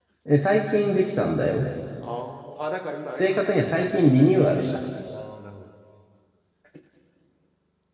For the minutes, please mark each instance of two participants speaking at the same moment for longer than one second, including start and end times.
none

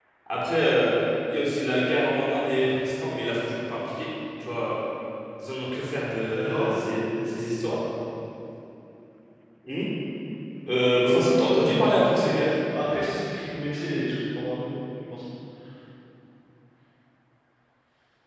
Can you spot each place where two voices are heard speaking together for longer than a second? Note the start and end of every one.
11.0-12.3

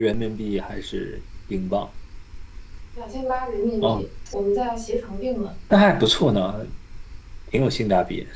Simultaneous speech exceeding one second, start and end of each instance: none

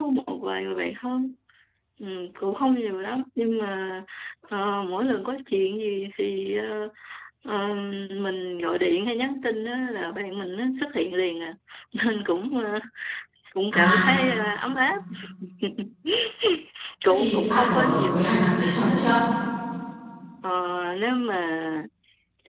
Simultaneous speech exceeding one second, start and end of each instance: 17.1-18.6

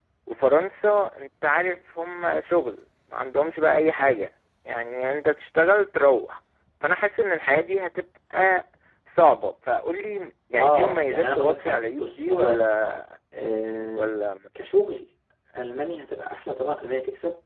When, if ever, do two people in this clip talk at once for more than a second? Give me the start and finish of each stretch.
10.6-12.7

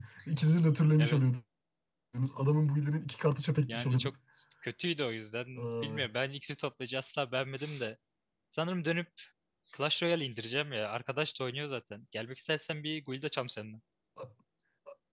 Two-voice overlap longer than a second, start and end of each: none

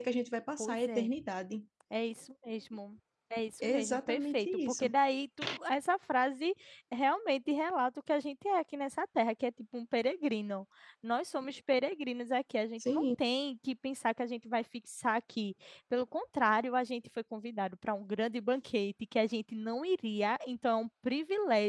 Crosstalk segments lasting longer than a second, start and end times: 3.6-4.9

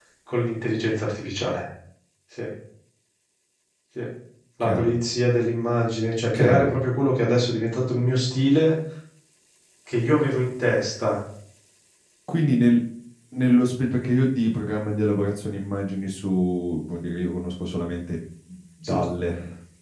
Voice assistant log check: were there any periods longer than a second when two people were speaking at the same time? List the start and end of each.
none

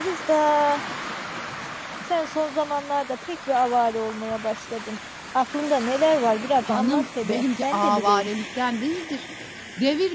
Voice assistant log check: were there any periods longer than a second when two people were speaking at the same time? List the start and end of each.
6.7-8.3

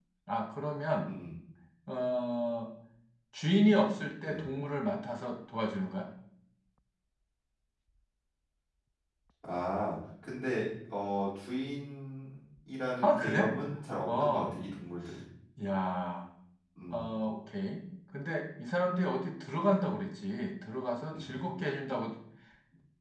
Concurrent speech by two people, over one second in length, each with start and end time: none

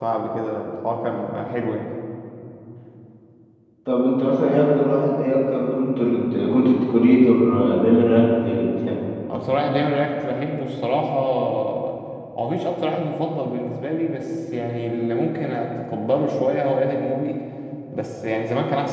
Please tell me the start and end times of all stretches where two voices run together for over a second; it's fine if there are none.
none

